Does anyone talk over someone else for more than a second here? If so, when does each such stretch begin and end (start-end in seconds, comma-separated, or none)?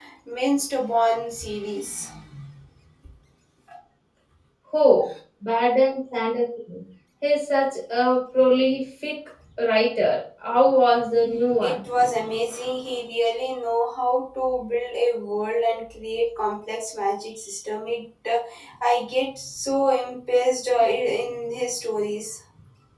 none